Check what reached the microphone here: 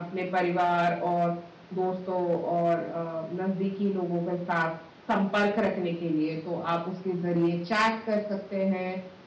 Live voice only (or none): none